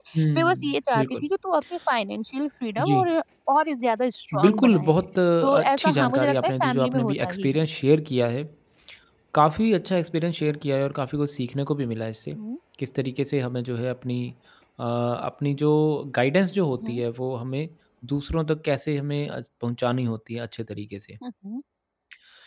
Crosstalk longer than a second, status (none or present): present